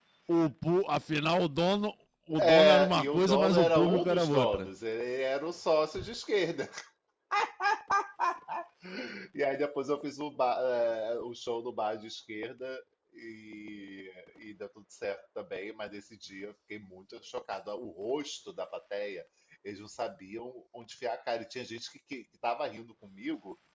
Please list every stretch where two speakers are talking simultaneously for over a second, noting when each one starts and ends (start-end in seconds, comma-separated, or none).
2.4-4.7